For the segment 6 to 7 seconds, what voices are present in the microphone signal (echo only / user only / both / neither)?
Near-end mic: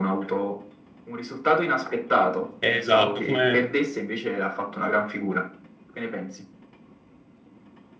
echo only